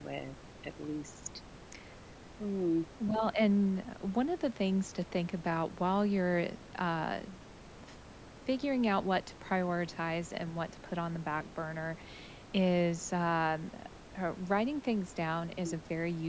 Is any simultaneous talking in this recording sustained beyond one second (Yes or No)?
No